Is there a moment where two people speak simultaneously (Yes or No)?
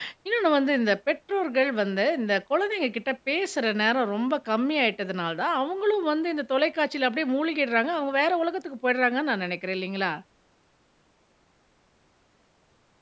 No